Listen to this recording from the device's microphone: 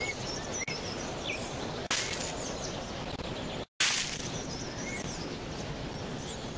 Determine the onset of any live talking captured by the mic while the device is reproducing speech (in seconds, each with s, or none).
none